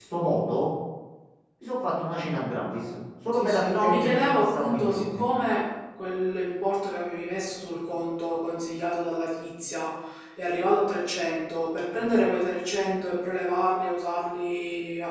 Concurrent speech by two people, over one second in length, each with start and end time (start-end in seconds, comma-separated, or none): 3.3-5.3